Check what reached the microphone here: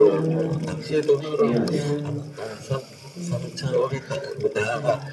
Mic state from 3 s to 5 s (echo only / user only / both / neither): both